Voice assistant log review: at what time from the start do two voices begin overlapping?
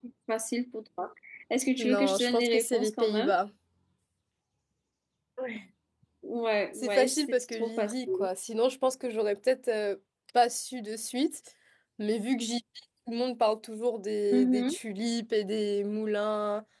2 s

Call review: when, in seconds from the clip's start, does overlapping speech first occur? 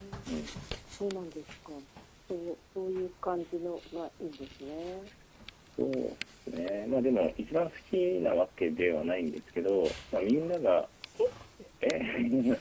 none

